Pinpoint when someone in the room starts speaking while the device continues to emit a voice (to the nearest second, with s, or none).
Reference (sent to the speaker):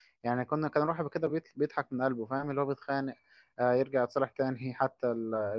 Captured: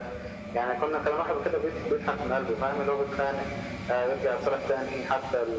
none